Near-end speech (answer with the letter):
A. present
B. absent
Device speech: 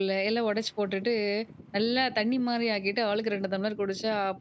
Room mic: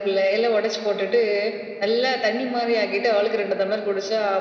B